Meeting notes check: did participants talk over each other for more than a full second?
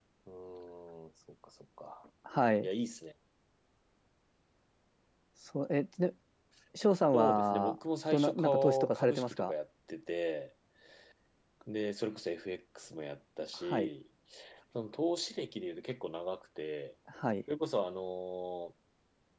Yes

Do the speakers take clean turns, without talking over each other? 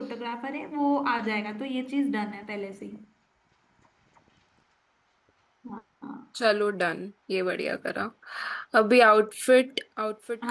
Yes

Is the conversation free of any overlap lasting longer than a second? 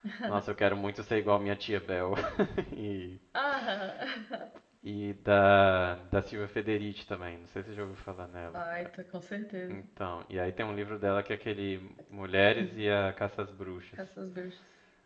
Yes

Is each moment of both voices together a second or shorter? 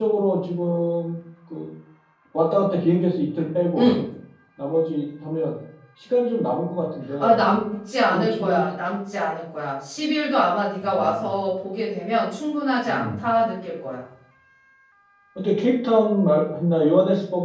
Yes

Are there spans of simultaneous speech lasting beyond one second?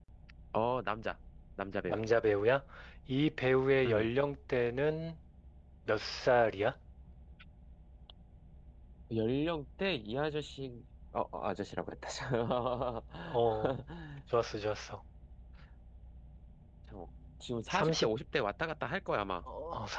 No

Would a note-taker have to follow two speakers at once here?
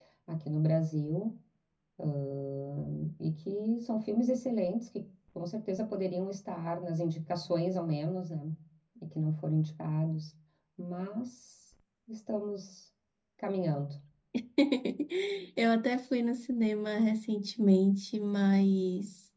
No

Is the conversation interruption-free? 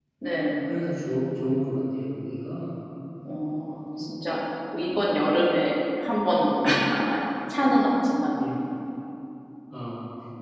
Yes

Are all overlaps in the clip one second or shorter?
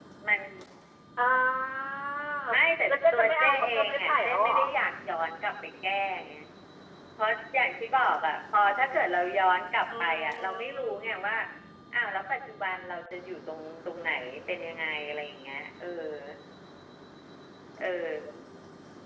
No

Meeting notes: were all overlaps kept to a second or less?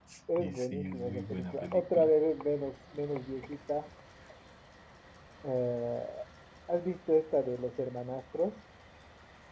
No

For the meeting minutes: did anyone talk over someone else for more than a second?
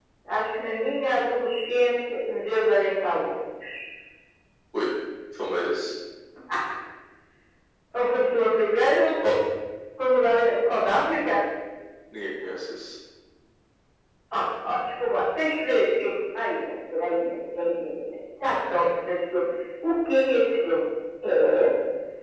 No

